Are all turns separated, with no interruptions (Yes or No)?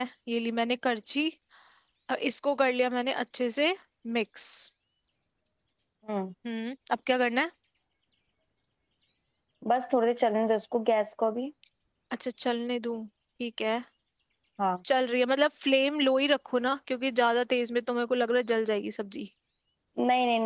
Yes